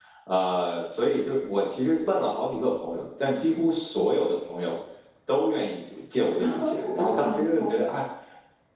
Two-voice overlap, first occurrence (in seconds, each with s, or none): 6.4 s